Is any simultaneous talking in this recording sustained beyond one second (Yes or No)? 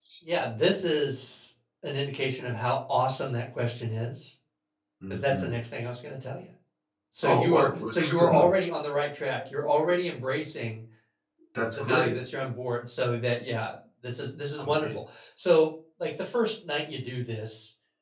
Yes